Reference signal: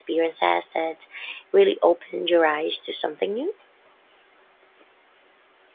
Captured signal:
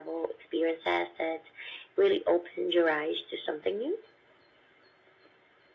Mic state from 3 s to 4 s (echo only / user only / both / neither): echo only